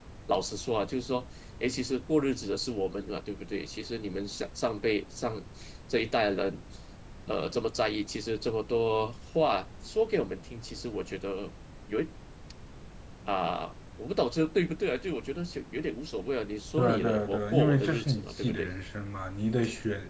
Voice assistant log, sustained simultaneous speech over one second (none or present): present